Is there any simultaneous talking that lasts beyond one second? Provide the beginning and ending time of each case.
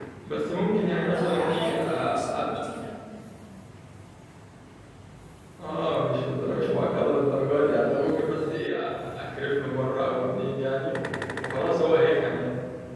1.0-2.6

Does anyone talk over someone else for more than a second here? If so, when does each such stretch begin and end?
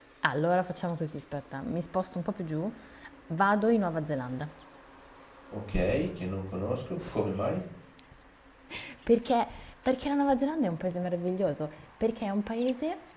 none

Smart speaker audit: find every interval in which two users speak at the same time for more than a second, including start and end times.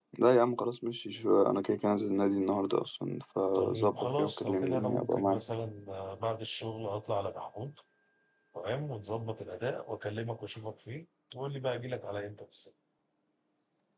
3.5-5.4

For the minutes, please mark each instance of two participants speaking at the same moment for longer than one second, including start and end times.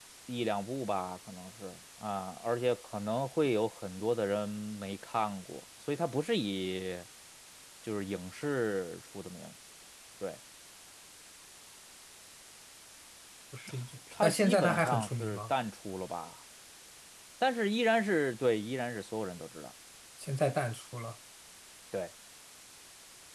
14.2-15.5

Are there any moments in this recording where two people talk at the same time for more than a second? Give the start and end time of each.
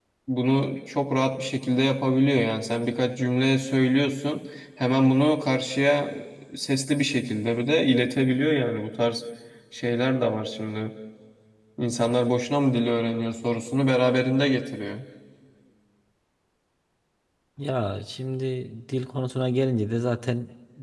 none

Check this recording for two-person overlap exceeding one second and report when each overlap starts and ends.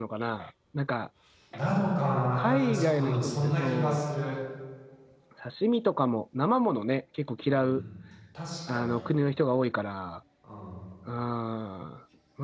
2.4-4.0

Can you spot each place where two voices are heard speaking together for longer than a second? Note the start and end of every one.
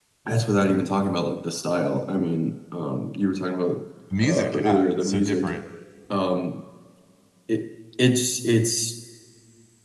4.3-5.5

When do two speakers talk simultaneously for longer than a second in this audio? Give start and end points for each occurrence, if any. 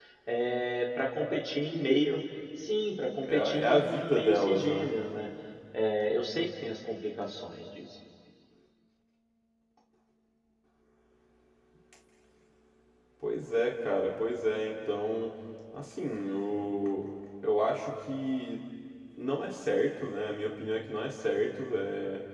3.2-4.9

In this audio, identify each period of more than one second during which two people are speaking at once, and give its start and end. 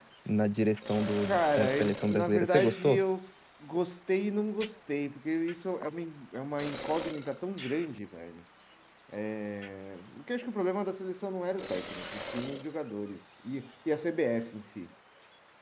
1.2-3.0

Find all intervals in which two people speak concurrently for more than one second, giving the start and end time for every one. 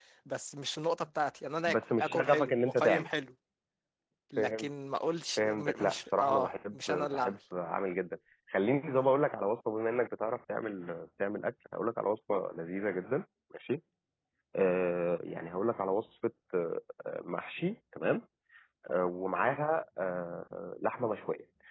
1.7-3.1, 5.4-7.3

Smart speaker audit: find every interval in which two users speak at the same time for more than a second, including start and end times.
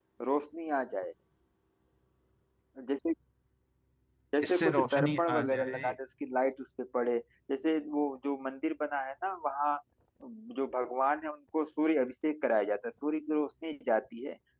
4.4-6.0

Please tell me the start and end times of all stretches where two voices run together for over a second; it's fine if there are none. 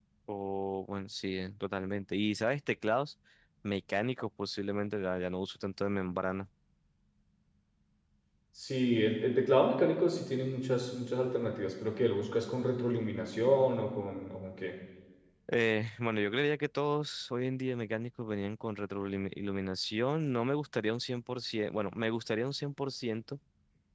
none

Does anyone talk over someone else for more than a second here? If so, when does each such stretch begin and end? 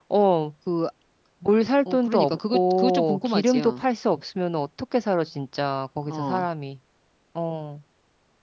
1.9-3.8

